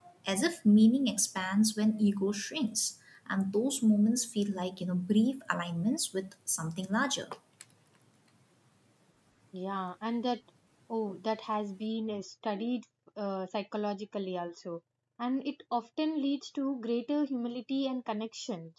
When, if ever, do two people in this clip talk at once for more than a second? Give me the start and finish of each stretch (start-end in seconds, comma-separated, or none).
none